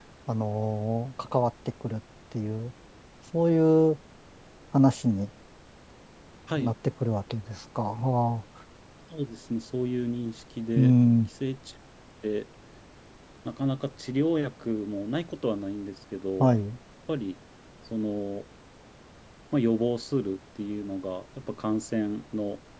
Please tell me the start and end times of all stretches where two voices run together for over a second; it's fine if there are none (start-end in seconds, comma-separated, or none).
none